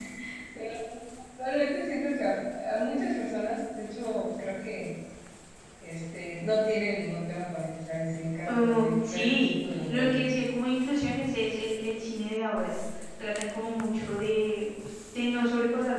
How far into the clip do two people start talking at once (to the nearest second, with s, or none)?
8 s